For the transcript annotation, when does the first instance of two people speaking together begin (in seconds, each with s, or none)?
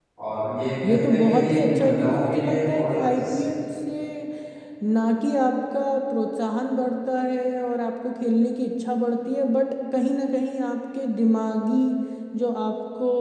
0.8 s